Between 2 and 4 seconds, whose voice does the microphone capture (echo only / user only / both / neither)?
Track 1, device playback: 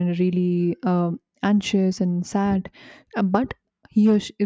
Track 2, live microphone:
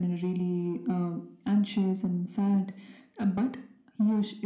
echo only